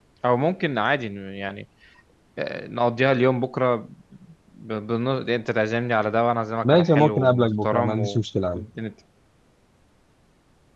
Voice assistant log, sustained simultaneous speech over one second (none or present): present